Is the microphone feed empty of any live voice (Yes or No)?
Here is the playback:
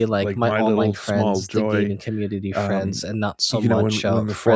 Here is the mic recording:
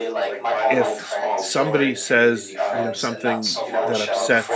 No